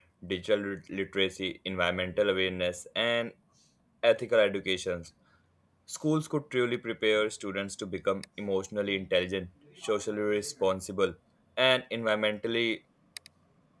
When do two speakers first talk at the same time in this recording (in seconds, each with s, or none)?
none